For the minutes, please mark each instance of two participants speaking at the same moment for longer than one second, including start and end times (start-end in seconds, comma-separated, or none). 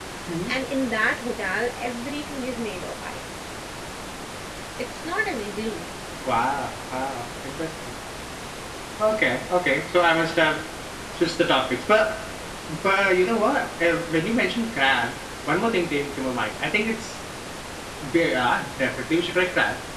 none